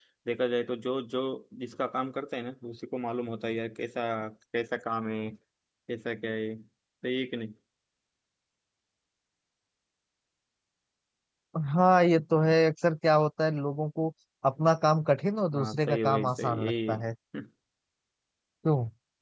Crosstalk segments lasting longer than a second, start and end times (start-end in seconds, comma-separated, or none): 15.5-17.0